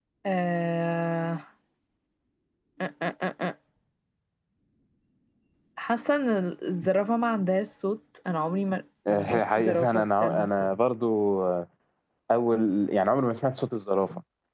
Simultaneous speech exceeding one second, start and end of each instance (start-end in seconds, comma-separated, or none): 9.1-10.8